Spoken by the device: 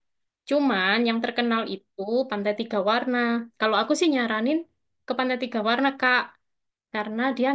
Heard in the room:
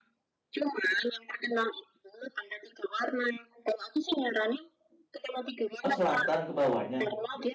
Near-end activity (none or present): present